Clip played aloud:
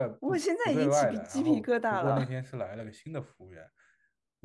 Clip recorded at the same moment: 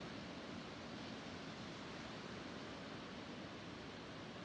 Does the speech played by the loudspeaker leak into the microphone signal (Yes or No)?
No